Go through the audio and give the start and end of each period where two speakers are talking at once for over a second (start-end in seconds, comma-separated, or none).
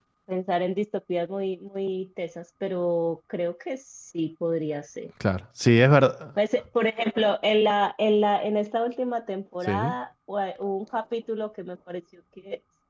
none